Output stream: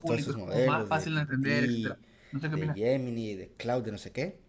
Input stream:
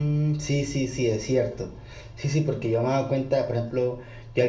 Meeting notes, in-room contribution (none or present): present